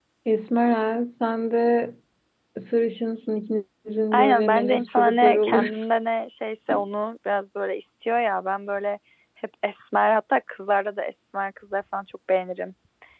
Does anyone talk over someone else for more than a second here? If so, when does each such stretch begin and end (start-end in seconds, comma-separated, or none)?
4.1-5.8